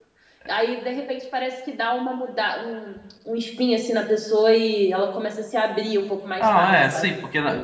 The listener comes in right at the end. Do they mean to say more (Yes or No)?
Yes